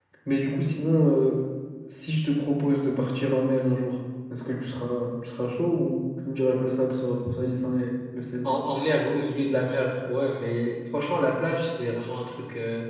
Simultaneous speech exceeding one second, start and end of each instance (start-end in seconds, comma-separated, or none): none